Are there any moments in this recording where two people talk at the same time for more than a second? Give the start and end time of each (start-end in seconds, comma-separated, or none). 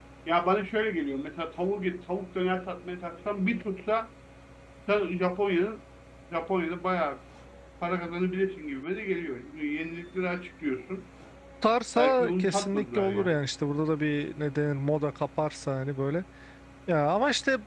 11.9-13.3